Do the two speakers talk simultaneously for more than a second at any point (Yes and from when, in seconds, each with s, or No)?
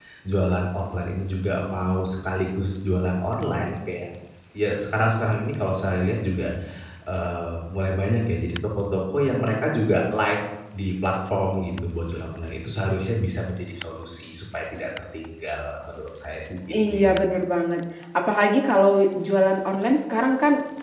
No